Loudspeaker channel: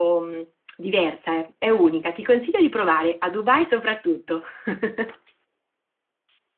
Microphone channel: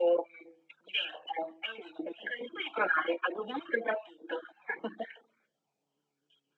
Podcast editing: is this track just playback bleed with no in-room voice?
Yes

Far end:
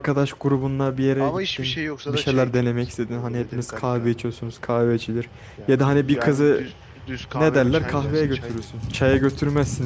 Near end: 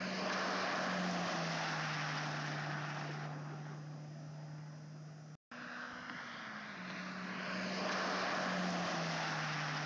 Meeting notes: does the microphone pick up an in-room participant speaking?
No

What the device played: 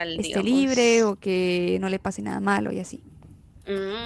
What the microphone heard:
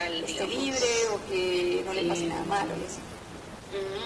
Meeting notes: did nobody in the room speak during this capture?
No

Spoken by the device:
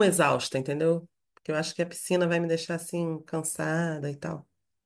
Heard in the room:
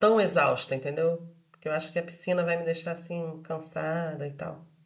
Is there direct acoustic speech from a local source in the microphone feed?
No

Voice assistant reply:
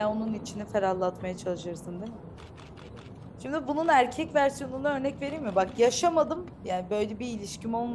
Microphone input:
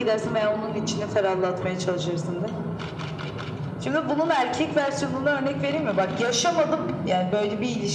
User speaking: No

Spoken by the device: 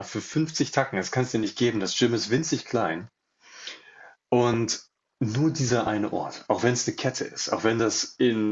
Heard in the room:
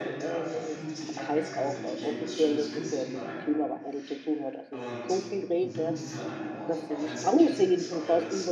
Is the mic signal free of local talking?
No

